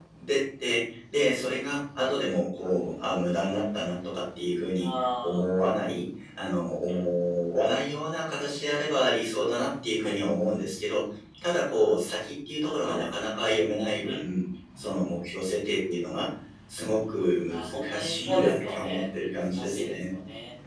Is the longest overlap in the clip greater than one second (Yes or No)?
Yes